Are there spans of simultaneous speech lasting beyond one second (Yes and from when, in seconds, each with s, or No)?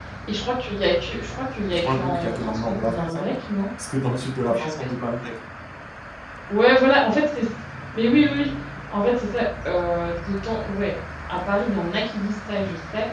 Yes, from 1.7 s